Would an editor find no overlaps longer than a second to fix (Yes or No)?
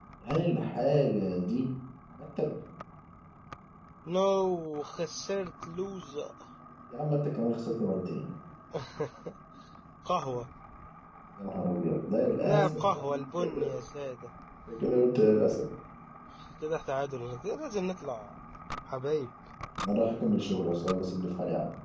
No